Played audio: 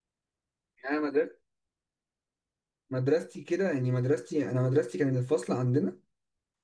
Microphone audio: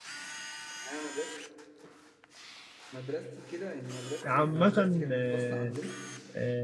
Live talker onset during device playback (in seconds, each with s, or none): 4.2 s